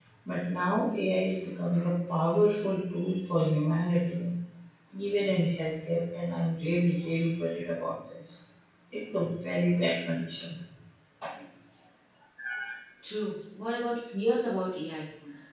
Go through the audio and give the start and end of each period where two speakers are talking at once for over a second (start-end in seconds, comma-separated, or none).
none